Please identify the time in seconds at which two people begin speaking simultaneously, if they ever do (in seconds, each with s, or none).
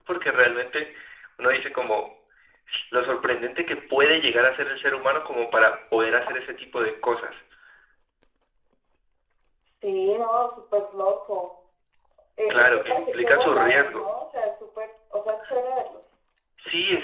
12.5 s